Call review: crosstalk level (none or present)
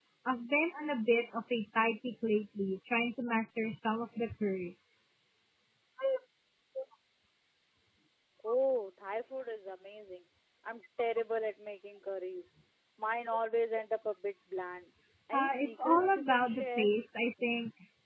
present